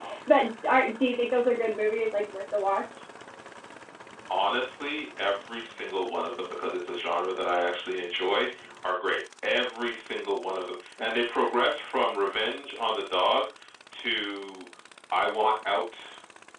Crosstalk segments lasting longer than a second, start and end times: none

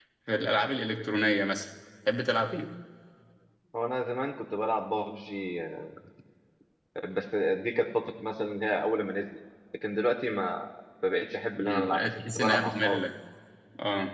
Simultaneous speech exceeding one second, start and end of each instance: 11.6-13.0

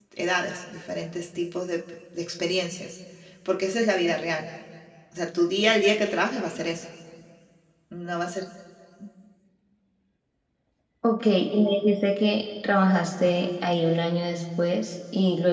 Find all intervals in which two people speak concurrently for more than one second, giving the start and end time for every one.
none

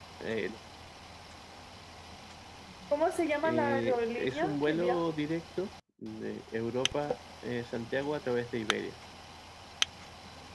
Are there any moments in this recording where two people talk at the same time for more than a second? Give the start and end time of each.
3.4-5.0

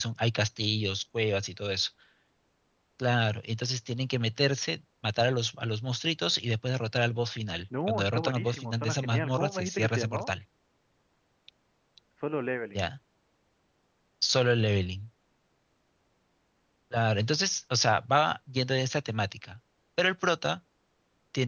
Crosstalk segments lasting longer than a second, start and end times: 7.9-10.3

